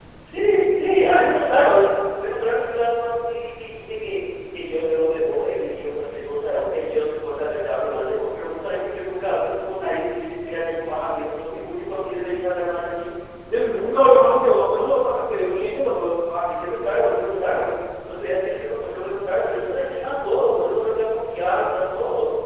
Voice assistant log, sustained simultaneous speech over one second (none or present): none